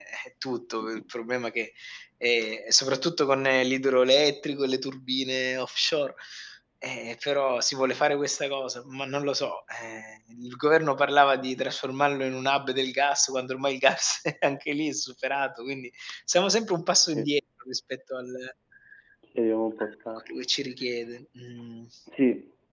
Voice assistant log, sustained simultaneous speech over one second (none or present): none